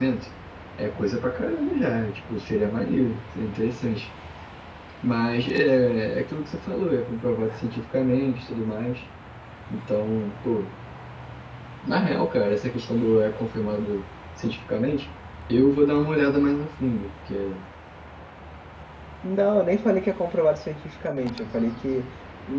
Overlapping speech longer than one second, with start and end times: none

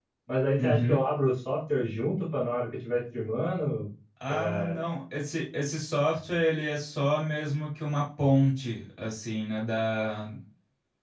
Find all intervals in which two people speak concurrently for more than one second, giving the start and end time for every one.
none

